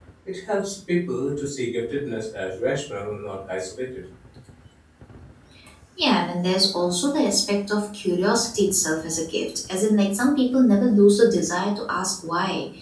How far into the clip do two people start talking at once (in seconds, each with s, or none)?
none